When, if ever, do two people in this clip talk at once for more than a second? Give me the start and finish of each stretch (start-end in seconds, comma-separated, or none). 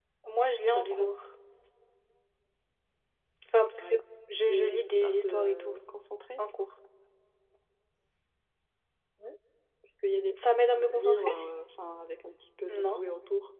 4.5-5.8